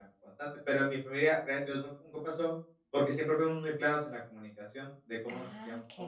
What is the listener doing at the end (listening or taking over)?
taking over